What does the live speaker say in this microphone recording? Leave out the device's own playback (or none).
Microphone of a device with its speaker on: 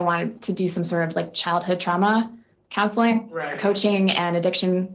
Right.